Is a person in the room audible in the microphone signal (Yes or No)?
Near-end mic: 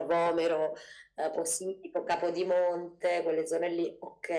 No